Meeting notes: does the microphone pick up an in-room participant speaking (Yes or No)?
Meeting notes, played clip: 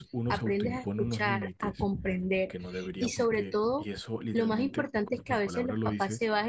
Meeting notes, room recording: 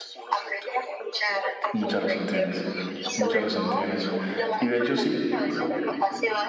Yes